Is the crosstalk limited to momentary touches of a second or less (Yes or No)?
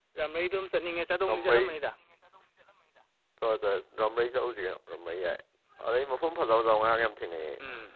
Yes